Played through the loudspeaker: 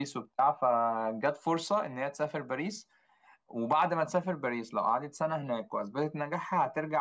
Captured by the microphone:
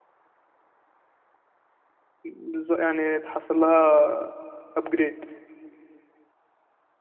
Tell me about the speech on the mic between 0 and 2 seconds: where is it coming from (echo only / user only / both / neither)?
neither